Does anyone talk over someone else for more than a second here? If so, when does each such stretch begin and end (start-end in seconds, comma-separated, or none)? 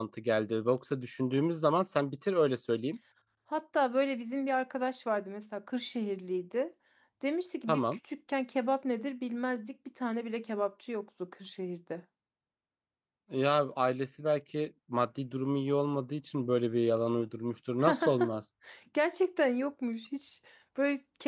none